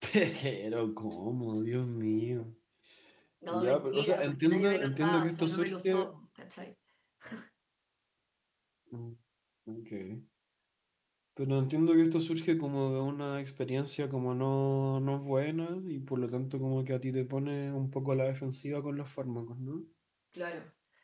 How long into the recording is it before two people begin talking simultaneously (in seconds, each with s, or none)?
3.5 s